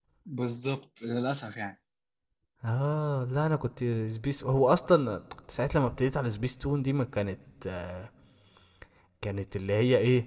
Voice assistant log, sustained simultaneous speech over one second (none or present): none